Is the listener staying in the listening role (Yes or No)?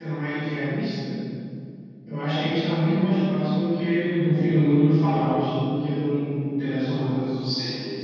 No